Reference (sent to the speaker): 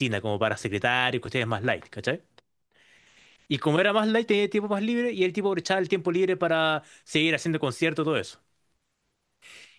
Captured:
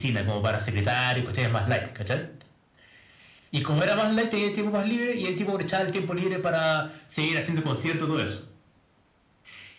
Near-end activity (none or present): none